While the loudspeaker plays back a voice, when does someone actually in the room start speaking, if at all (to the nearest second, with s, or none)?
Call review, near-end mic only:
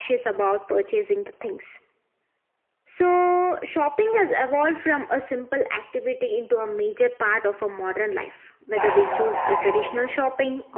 9 s